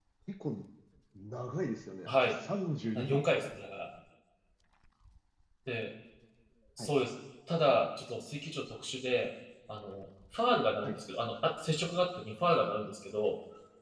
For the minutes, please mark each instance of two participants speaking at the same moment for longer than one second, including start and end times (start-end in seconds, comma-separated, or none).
none